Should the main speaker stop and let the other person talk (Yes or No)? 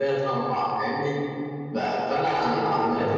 No